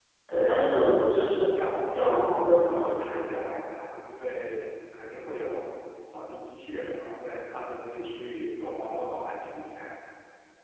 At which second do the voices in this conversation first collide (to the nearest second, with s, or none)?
2 s